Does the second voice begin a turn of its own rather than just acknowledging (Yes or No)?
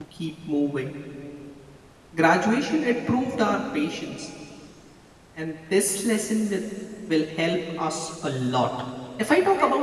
No